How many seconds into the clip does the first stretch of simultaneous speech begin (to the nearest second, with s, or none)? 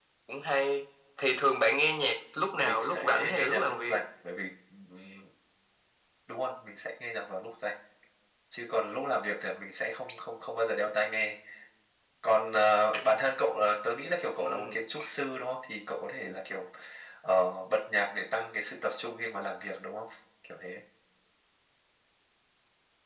3 s